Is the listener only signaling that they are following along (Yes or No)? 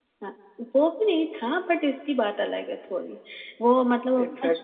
Yes